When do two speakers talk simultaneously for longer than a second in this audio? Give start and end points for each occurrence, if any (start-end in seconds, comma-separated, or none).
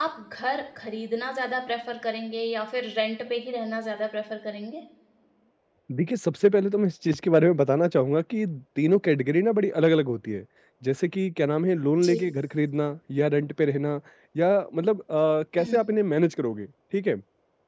none